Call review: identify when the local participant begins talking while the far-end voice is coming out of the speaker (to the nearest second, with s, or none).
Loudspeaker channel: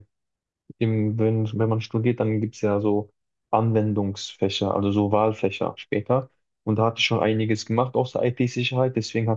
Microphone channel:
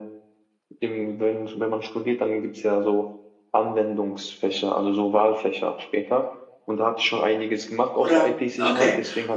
8 s